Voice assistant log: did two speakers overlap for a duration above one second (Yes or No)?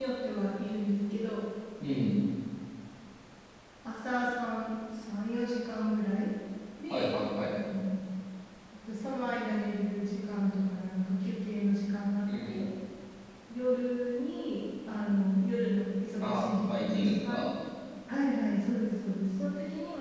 Yes